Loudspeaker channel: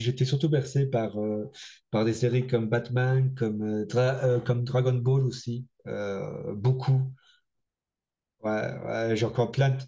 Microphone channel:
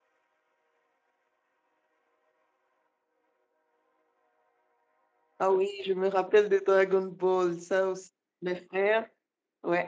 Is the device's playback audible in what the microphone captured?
No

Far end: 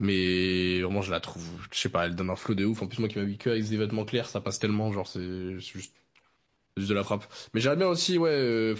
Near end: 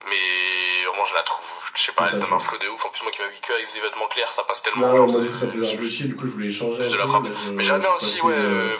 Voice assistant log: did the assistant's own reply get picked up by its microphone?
Yes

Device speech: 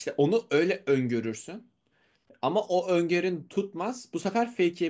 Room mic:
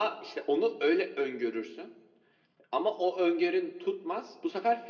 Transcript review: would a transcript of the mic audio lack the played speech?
No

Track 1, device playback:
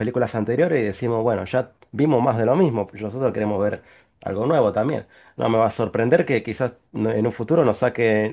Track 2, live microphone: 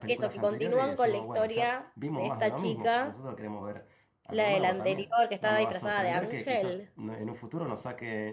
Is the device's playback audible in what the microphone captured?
Yes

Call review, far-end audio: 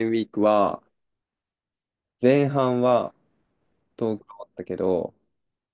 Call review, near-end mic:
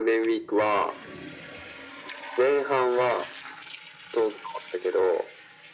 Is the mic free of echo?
No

